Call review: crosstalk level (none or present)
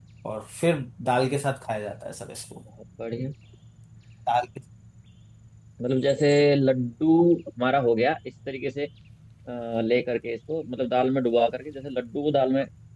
none